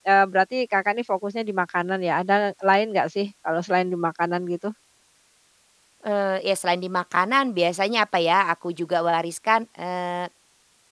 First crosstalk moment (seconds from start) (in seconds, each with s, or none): none